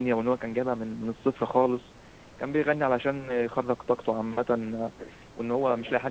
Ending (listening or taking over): listening